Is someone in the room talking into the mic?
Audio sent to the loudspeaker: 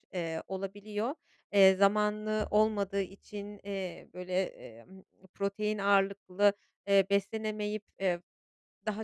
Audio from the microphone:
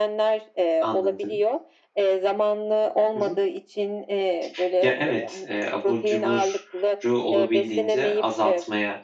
Yes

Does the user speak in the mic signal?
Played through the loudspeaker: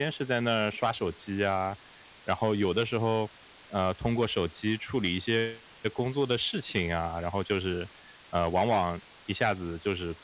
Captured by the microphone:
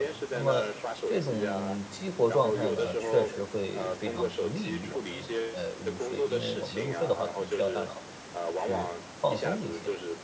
Yes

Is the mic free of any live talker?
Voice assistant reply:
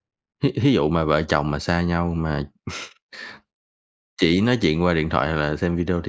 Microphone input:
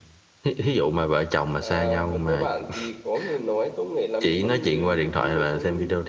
No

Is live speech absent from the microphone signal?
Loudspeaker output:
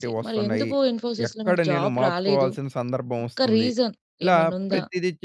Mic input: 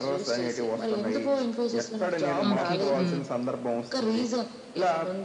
No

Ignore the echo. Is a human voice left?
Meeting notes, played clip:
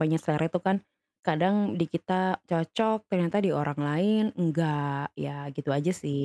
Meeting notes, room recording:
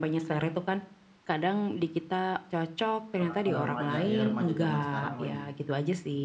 Yes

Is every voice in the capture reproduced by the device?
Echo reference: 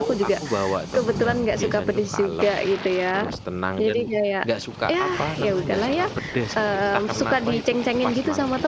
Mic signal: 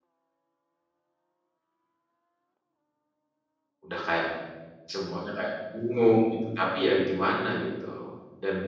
No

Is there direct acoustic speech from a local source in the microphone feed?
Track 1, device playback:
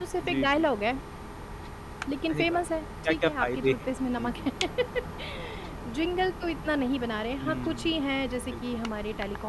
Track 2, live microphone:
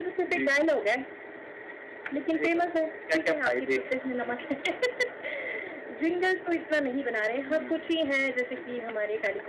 No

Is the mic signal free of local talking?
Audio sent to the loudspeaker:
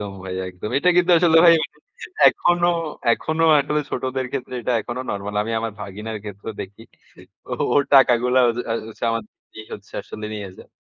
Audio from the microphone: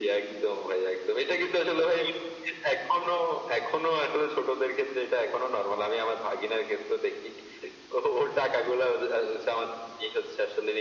Yes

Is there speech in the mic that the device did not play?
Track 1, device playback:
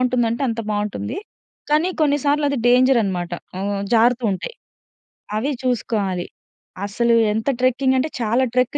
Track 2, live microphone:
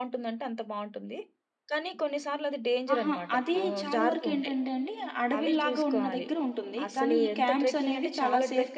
Yes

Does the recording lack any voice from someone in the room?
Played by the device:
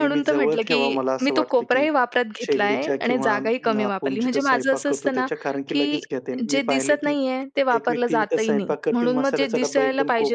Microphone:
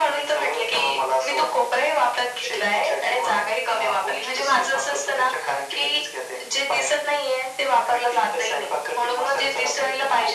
Yes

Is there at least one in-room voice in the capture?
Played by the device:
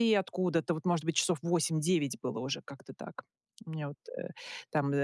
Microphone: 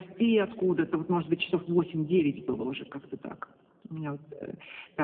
No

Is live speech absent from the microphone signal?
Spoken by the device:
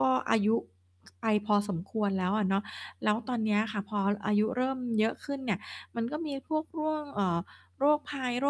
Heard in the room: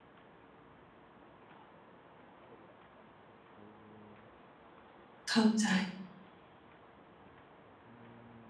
No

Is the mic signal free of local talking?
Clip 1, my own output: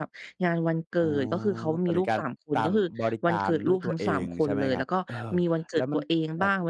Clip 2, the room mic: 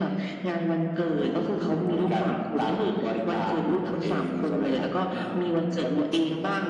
Yes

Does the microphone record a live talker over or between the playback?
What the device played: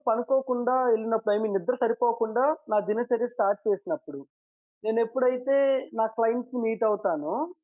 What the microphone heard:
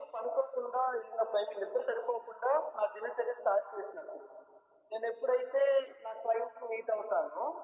No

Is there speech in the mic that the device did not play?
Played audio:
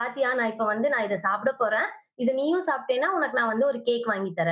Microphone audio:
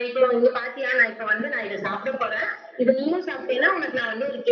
No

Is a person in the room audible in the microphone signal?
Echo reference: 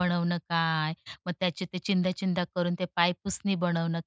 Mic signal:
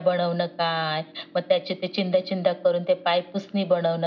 No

